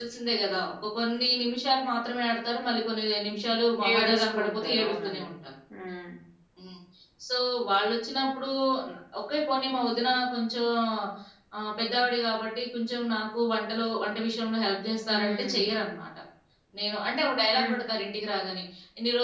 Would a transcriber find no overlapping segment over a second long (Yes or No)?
No